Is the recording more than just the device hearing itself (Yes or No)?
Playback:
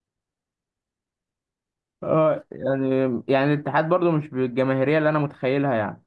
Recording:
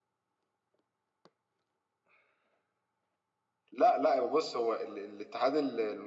Yes